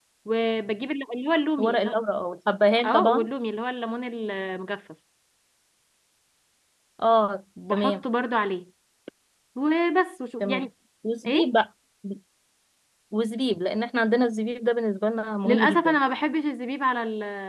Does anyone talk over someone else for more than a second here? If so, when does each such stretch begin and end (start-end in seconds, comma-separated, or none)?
none